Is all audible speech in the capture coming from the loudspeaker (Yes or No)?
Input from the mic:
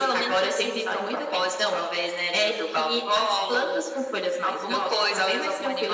Yes